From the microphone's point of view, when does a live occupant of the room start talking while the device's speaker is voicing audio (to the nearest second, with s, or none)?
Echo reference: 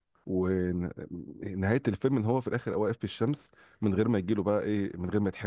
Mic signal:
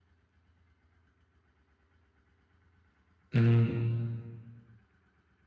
3 s